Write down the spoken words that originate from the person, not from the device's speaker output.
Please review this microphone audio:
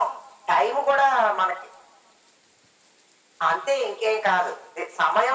none

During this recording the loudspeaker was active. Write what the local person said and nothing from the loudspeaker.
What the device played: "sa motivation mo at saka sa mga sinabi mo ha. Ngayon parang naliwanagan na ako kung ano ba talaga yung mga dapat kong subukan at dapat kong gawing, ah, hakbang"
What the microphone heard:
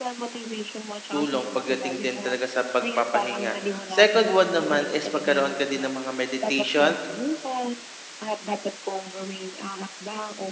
tulong pagdating din talaga sa pagpapahinga. Second one naman is magkaroon ka din ng mga meditation,

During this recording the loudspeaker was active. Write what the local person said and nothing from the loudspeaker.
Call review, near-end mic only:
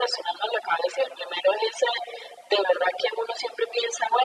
none

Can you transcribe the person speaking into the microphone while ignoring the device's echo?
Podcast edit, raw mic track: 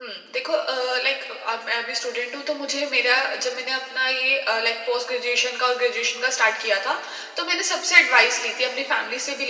none

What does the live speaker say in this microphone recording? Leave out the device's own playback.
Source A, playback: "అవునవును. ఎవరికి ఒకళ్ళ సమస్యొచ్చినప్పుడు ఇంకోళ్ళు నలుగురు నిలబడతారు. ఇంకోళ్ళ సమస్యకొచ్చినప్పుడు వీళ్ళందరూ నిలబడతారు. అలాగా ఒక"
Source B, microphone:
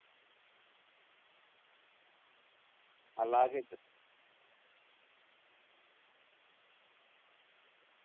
అలాగే చేస్

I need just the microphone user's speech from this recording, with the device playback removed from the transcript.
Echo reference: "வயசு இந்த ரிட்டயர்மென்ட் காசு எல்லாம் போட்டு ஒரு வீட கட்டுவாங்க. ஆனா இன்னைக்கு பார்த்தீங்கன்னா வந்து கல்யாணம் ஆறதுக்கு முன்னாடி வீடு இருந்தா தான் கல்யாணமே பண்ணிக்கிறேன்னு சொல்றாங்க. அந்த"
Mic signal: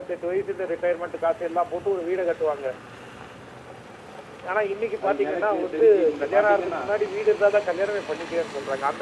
அது எனக்கு தெரிஞ்சு நீங்க பார்த்தீங்கன்னா,

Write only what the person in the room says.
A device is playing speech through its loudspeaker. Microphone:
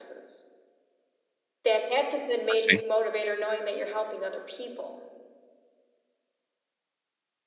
I see.

